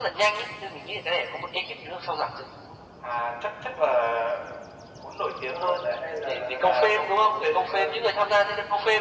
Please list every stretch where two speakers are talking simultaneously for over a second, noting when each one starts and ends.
6.2-8.0

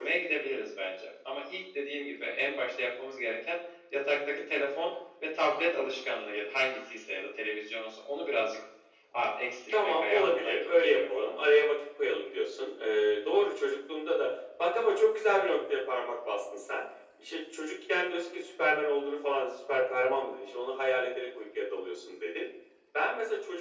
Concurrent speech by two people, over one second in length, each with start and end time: 9.7-11.3

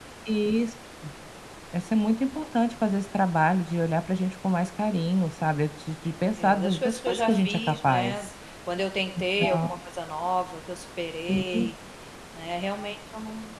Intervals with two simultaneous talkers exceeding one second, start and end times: 6.4-8.3

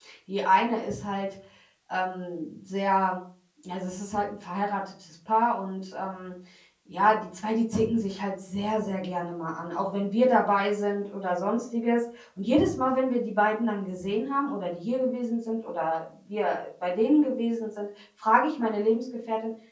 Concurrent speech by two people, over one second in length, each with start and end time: none

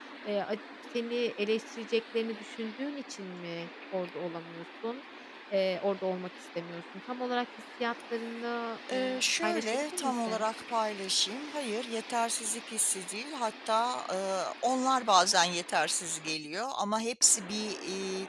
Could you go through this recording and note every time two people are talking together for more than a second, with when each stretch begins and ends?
8.9-10.5

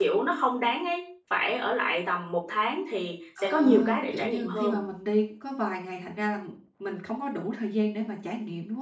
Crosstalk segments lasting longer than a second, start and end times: 3.4-4.8

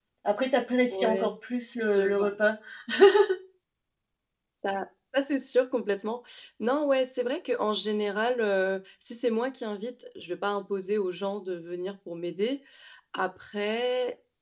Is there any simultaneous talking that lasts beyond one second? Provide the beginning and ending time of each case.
none

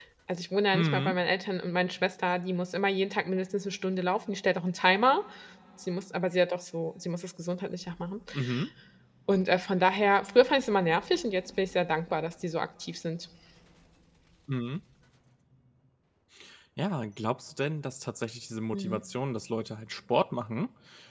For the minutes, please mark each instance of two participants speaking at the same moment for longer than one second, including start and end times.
none

